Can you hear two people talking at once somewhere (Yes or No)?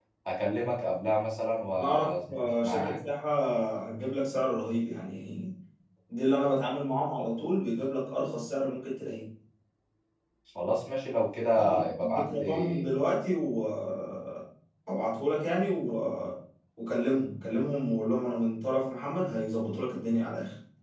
Yes